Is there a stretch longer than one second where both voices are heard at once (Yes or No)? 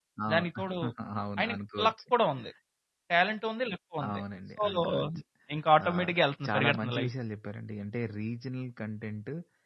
Yes